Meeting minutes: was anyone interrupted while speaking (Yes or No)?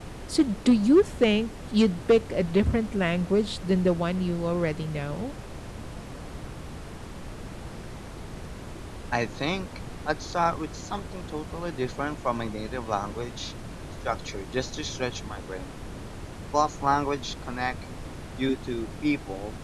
No